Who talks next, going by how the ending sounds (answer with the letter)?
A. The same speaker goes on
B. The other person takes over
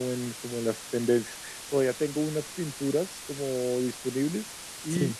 A